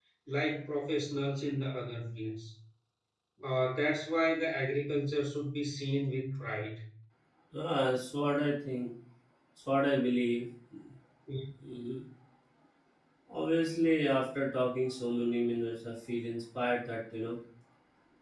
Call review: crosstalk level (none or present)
none